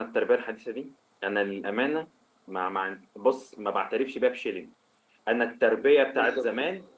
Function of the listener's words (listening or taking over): listening